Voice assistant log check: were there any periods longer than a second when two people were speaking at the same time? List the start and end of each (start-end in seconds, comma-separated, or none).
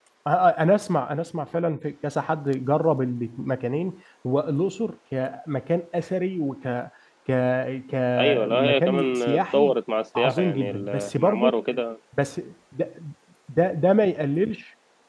8.2-9.8, 10.2-11.6